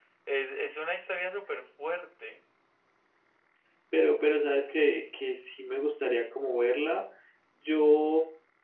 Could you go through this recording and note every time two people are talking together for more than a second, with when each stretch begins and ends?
none

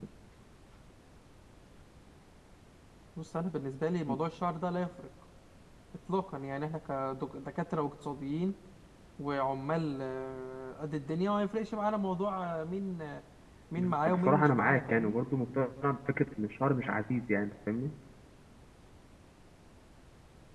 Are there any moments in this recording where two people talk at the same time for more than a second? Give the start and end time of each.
13.8-15.2

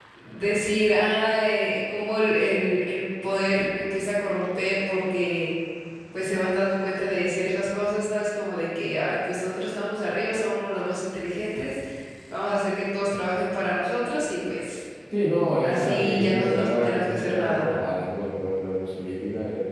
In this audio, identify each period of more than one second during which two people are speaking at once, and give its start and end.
15.6-17.8

